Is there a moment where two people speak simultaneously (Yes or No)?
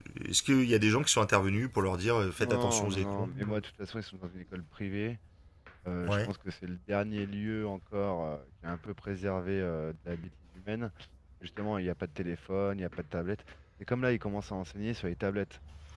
Yes